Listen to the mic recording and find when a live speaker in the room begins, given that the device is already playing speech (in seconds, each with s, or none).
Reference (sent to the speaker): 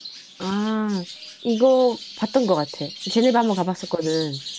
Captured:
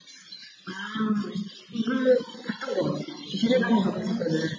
3.4 s